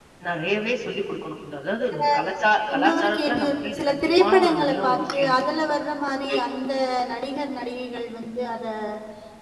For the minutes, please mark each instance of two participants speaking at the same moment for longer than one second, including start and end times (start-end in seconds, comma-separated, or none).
2.7-5.4